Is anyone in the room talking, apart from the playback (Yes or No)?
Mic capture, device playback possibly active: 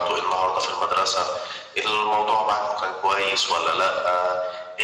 No